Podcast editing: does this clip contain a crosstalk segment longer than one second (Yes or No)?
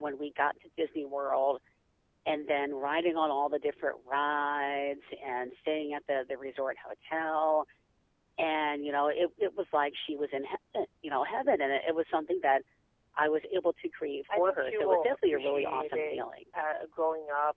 Yes